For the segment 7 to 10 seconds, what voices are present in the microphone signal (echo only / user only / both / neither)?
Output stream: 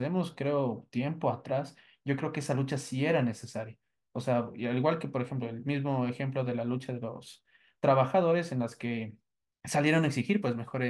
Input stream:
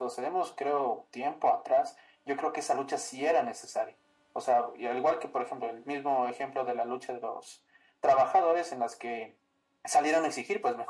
echo only